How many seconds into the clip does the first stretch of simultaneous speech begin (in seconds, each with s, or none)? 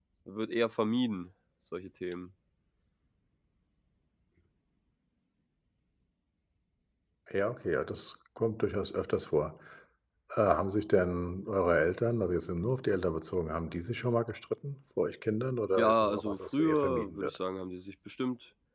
15.8 s